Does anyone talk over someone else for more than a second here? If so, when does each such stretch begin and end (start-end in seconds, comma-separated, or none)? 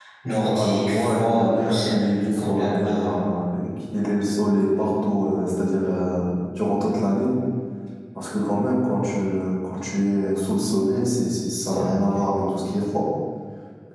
0.5-3.2